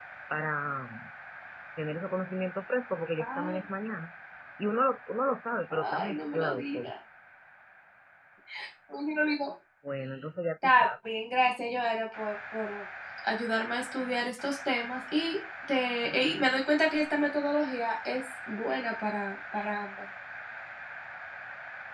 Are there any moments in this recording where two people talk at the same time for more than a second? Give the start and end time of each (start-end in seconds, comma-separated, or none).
5.7-6.9